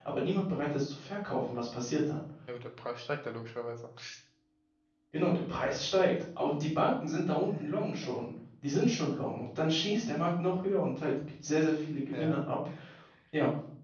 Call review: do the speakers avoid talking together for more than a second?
Yes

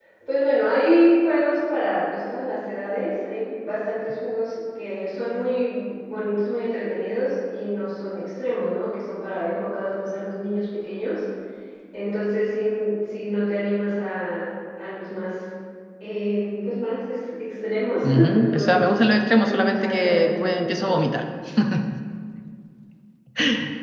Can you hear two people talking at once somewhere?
Yes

